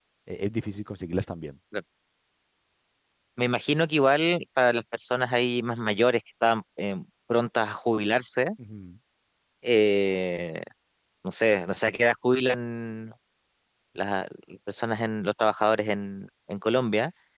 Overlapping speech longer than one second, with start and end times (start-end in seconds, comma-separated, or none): none